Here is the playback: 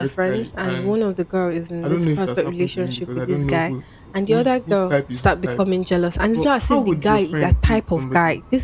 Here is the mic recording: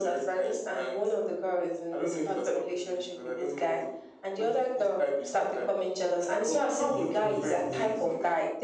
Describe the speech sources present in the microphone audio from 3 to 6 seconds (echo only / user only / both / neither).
echo only